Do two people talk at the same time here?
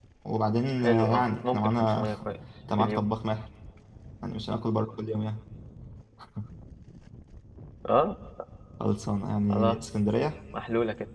Yes, from 0.8 s

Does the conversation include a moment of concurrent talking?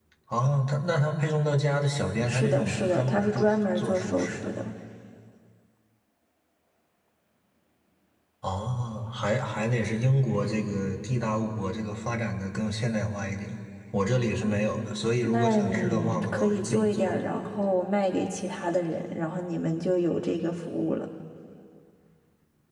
Yes, from 2.3 s

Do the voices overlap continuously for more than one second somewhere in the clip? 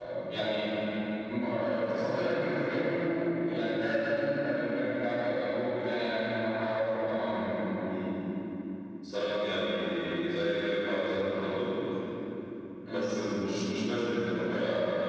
No

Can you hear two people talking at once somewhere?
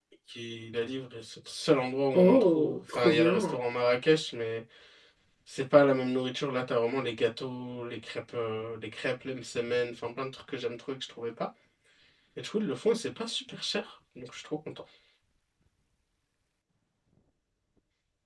Yes, from 2.1 s

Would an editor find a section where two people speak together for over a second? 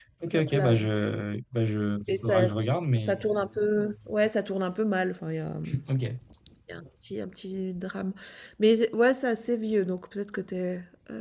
No

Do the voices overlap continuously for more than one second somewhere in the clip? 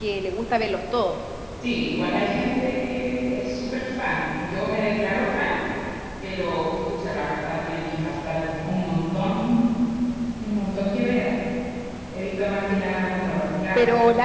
No

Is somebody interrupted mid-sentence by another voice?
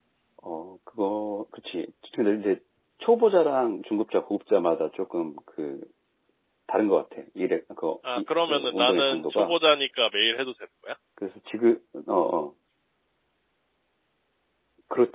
Yes, from 8.1 s

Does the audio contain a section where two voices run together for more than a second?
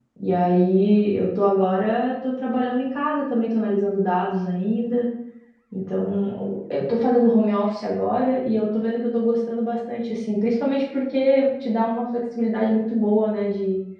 No

